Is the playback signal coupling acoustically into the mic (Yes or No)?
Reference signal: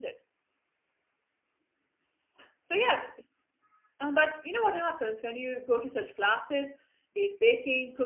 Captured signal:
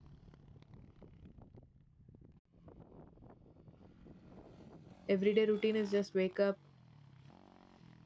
No